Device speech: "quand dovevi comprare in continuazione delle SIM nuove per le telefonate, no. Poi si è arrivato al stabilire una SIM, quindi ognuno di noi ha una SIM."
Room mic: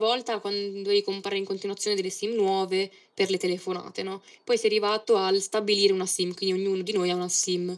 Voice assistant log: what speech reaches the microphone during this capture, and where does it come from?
echo only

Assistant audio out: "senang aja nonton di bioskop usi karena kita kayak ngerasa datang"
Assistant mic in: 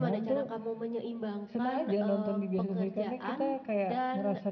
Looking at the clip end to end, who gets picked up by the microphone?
both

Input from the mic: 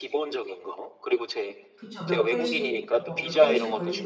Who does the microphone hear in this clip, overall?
both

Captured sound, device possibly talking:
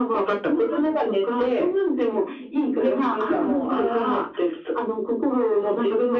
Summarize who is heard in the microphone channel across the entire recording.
echo only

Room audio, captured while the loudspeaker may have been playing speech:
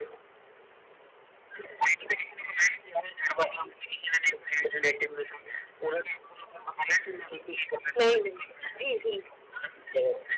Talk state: both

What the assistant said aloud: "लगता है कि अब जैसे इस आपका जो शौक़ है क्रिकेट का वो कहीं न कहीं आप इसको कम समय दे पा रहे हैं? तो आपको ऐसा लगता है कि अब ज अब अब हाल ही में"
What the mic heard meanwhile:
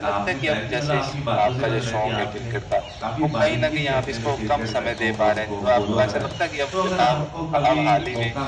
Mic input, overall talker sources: both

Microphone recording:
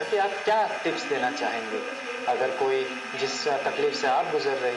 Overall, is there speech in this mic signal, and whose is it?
both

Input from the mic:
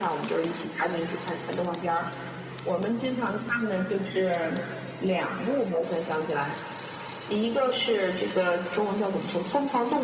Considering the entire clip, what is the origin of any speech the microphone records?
echo only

